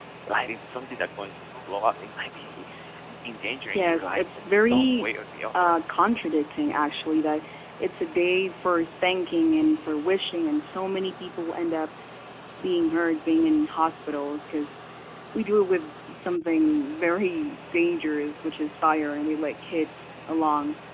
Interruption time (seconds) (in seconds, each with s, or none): 3.7 s